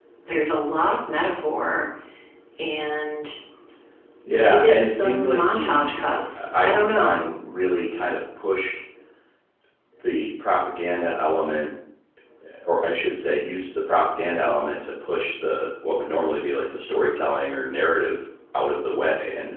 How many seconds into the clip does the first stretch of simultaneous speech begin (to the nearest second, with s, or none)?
4 s